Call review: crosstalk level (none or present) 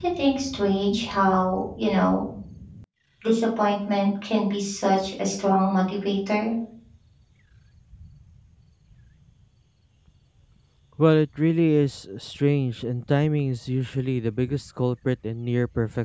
none